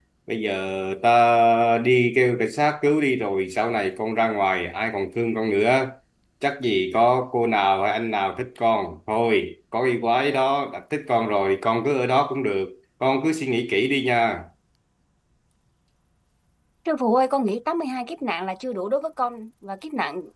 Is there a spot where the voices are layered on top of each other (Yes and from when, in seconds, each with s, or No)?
No